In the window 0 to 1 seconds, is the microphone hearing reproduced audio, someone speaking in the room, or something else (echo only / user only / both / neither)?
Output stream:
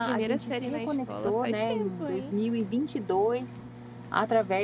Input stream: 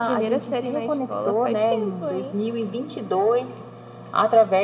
echo only